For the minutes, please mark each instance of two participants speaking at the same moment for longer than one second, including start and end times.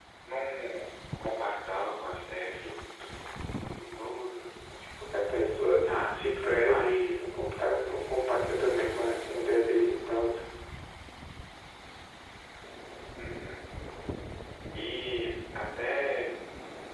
5.8-7.2

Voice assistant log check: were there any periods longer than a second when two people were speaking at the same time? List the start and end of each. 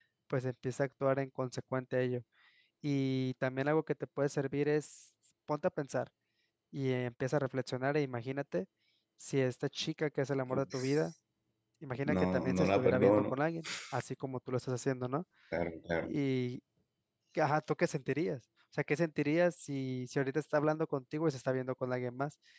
12.2-13.4

